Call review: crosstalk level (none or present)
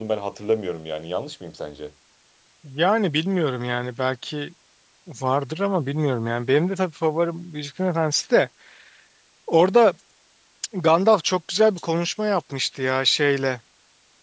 none